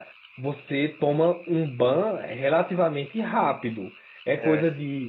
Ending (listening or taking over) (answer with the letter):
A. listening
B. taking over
A